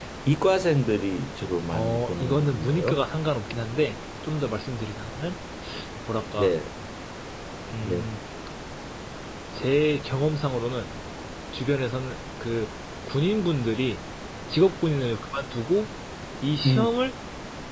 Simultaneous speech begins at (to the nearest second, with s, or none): 2 s